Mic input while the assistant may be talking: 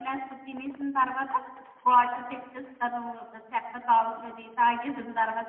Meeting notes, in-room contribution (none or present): none